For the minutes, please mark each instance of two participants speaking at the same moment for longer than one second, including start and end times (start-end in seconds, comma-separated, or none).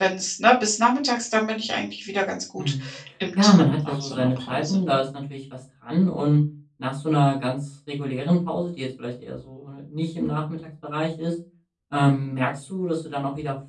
3.4-4.8